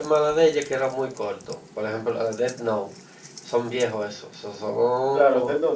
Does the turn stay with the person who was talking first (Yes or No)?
No